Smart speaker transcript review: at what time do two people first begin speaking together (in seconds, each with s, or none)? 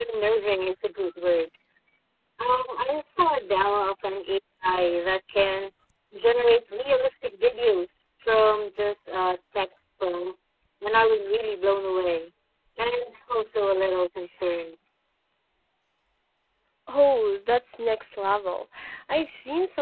none